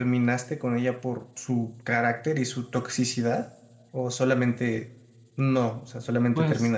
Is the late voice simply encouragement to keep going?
No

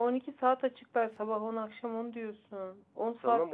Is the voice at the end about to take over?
Yes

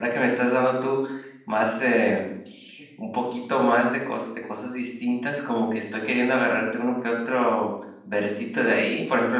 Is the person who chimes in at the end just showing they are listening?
Yes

